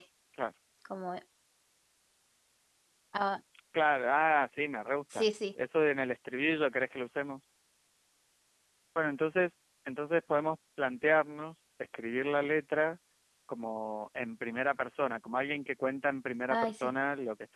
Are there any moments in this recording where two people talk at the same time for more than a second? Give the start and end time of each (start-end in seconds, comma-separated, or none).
none